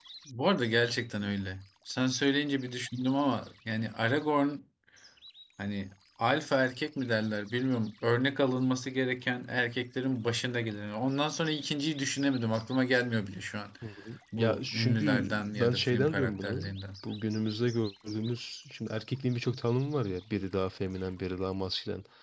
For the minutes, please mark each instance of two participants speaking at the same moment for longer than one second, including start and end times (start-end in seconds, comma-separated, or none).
14.3-16.6